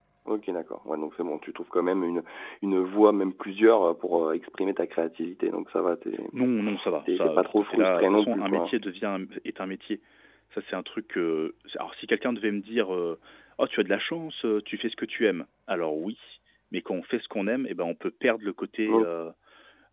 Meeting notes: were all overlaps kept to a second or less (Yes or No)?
No